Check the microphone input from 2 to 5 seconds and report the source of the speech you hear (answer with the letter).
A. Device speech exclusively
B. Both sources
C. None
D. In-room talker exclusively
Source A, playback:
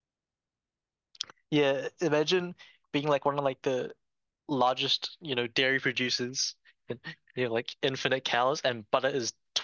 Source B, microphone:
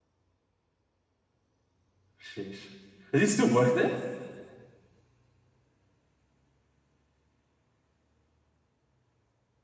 D